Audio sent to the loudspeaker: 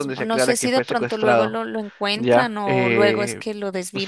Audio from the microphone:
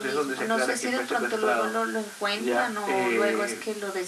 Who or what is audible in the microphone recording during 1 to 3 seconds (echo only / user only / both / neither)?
echo only